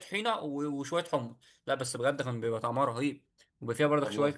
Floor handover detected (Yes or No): No